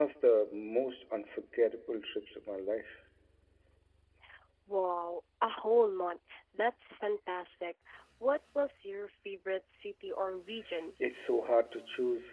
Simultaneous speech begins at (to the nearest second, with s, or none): none